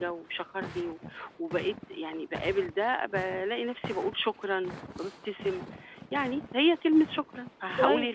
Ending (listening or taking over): taking over